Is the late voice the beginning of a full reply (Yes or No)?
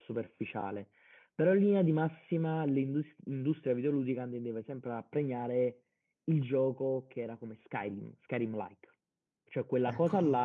No